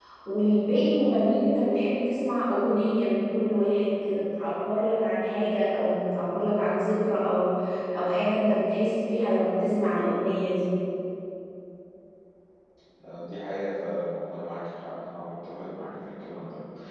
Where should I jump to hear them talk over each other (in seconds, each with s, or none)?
none